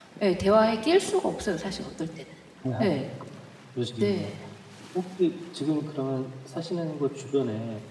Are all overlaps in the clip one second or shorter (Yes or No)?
Yes